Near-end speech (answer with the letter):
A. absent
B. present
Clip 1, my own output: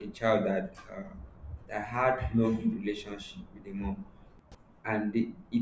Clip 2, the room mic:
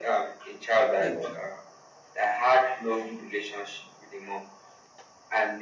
B